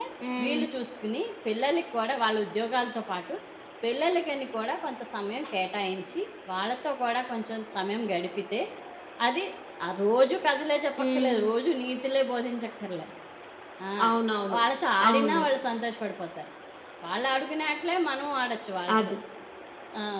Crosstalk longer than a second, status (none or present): none